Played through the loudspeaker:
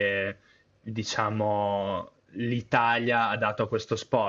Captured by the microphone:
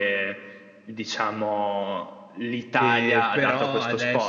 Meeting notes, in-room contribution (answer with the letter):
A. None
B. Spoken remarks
B